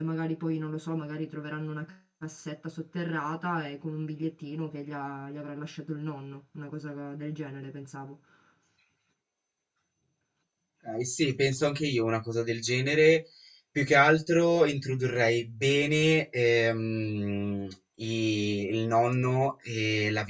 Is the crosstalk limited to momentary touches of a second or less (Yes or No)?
Yes